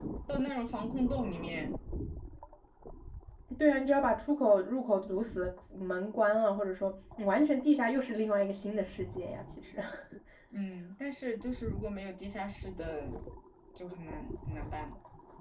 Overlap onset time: none

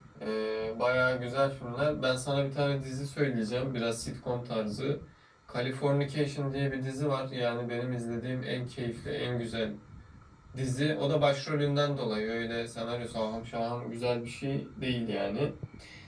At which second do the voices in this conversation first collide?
none

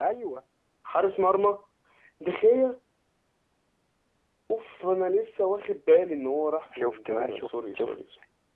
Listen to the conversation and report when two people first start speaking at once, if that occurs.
7 s

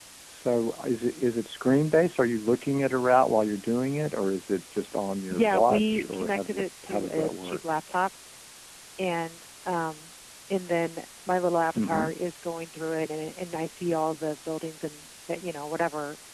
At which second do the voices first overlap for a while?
5 s

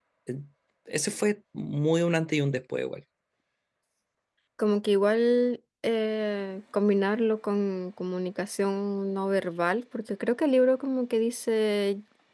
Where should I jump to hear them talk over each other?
none

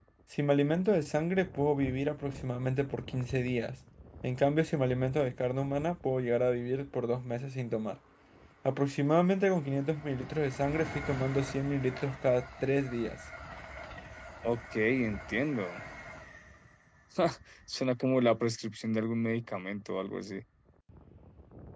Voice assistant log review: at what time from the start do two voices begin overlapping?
none

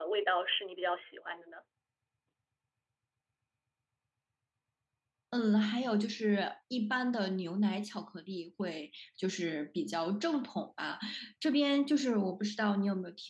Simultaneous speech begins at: none

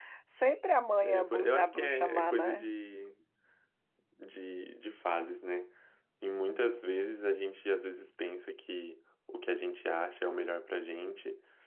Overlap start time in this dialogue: 1 s

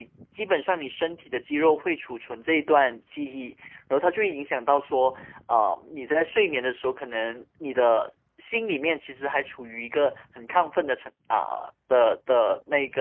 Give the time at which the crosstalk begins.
none

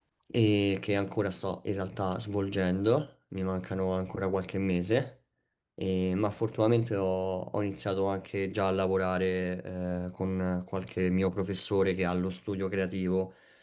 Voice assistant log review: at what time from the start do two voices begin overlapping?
none

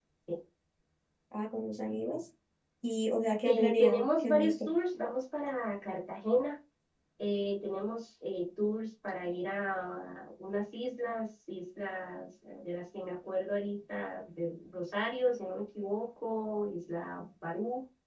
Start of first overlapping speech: 3 s

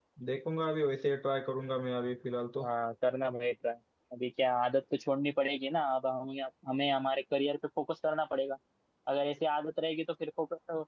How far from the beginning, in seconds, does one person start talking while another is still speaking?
none

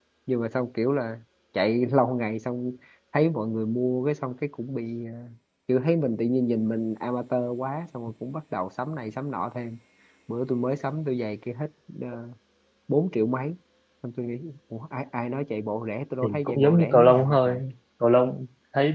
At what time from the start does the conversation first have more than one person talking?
16 s

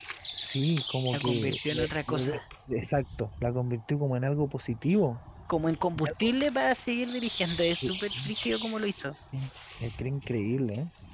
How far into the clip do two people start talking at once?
1 s

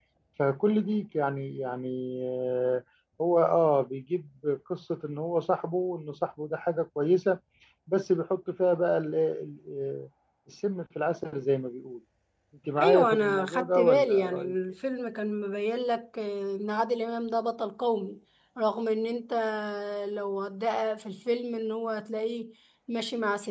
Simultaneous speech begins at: 13 s

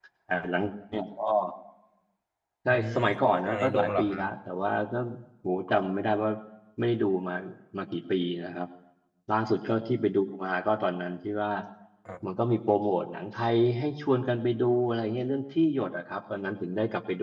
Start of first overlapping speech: 3 s

